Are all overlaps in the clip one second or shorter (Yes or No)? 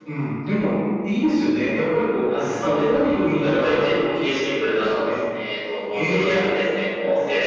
No